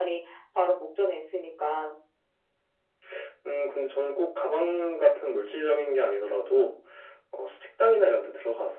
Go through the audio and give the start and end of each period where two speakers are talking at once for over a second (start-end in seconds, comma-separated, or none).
none